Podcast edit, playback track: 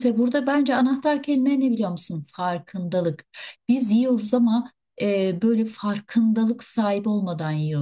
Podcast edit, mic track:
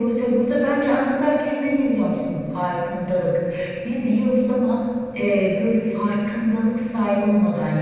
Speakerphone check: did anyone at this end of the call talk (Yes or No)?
No